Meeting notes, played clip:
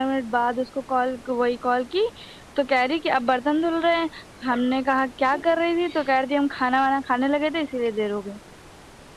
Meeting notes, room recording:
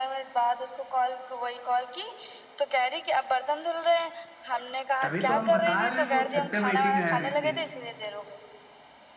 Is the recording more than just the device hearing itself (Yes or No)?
Yes